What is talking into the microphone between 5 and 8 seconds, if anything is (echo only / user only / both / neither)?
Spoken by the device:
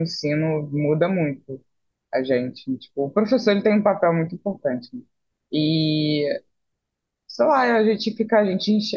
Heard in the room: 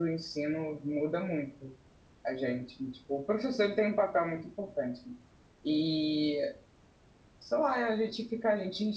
echo only